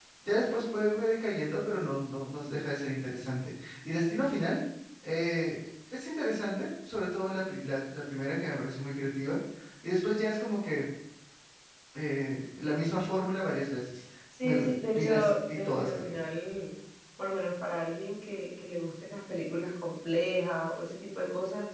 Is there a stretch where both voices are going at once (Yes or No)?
Yes